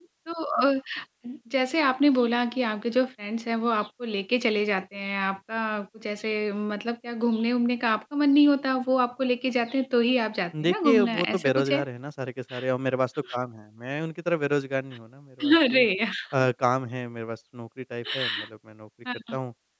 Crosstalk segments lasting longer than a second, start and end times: 10.6-11.8

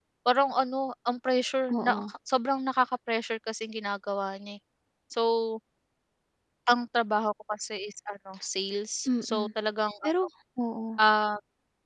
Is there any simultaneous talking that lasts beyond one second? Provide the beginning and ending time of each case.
none

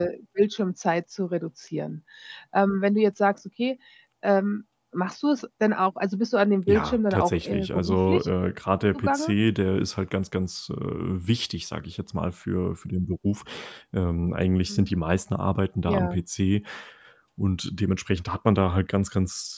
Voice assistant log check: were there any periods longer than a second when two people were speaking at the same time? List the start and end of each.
6.7-8.3

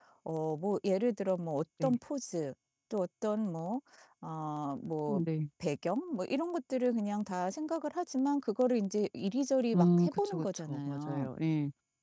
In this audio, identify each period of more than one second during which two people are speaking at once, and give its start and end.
9.7-11.3

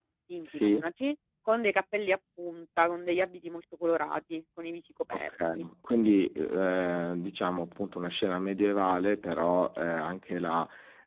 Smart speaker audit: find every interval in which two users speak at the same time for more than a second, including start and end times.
none

